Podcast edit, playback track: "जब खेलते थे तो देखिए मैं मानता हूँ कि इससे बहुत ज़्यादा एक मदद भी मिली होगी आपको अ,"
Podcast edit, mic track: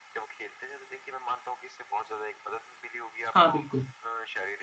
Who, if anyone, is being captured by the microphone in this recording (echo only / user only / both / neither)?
both